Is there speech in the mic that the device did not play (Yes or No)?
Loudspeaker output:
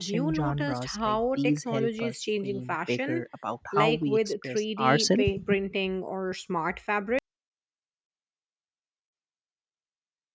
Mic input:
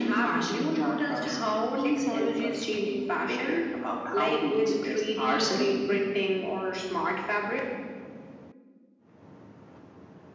No